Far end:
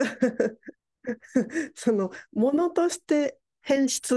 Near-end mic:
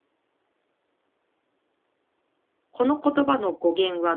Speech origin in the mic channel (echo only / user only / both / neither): user only